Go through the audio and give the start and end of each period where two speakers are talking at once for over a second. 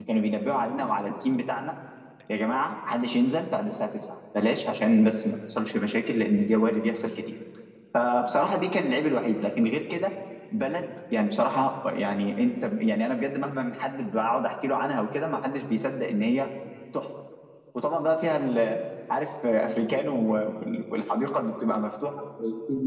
none

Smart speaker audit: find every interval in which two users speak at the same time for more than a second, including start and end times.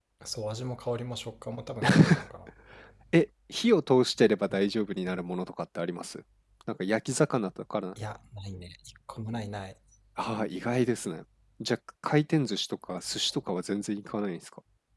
none

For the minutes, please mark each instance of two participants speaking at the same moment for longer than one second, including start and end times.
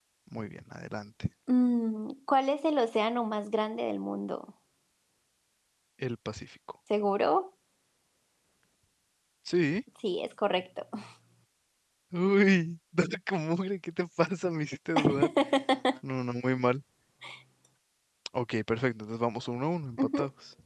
none

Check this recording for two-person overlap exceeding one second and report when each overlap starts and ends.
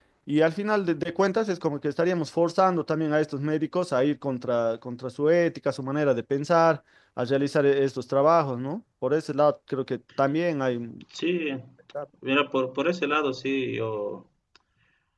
none

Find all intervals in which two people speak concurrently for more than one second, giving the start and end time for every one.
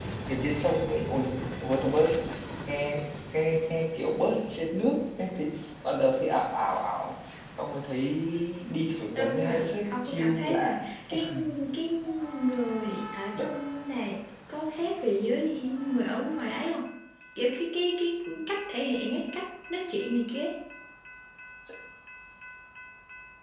9.2-10.7

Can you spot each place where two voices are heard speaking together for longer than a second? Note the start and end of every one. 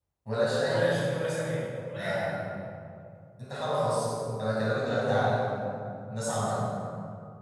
none

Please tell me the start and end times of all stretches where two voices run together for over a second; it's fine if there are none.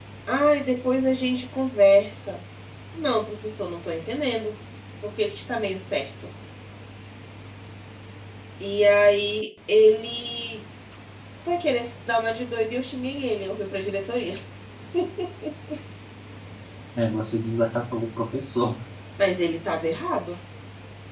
none

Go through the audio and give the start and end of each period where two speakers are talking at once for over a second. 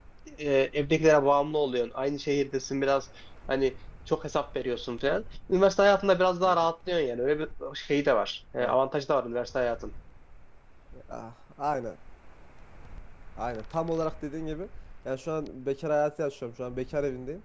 none

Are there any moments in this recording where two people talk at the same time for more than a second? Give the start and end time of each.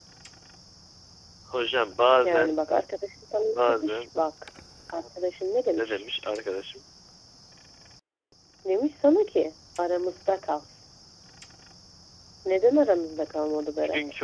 none

